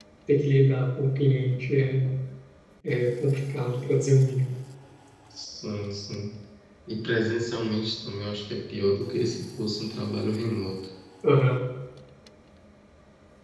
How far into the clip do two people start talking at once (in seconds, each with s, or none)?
none